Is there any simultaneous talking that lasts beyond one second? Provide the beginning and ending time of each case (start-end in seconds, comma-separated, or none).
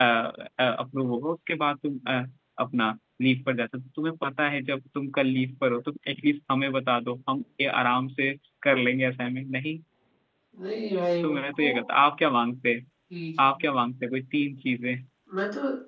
none